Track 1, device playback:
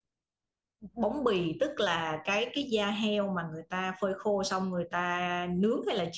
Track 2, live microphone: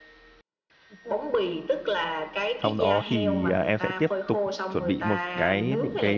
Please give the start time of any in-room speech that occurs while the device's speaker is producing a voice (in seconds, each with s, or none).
2.6 s